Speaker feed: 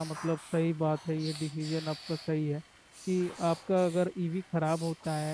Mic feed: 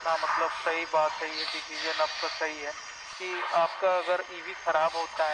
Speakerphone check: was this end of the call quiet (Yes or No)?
Yes